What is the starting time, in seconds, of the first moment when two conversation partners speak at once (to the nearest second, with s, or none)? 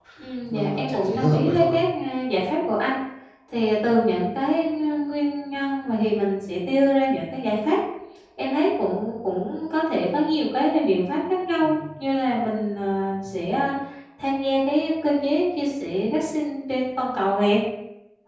1 s